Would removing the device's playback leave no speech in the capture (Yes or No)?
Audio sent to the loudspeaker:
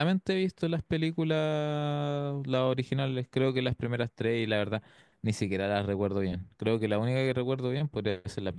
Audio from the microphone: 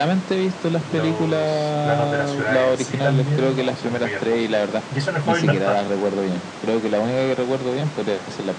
No